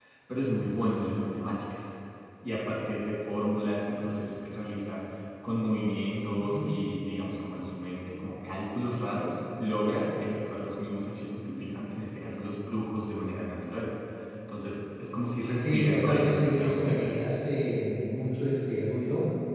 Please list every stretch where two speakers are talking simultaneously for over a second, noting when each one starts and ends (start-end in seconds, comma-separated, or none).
15.6-17.2